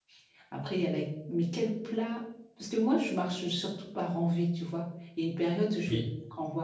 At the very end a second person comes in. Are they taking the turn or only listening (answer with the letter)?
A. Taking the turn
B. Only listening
B